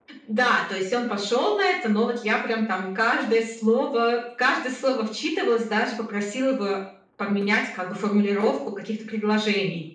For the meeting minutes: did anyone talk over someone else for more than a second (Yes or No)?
No